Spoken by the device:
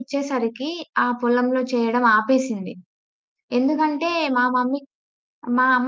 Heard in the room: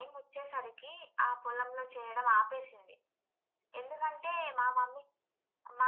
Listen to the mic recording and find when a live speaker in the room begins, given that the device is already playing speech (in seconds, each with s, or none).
none